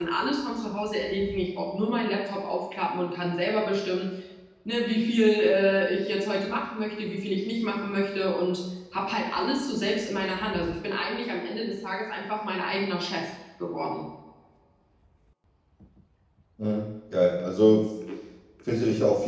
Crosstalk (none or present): none